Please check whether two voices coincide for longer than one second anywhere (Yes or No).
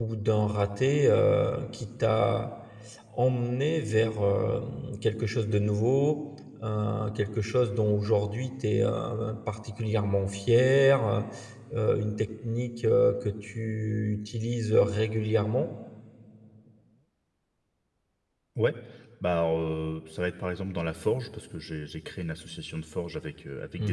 No